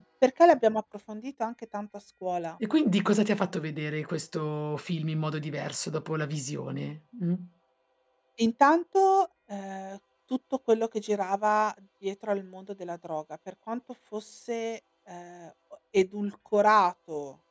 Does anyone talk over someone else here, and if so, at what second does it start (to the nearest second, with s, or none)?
none